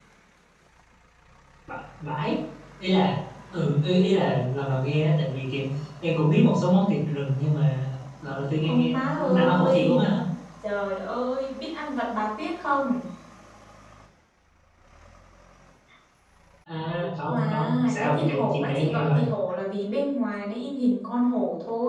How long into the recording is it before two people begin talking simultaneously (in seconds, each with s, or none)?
8.6 s